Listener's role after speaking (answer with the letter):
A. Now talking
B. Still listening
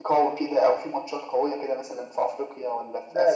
A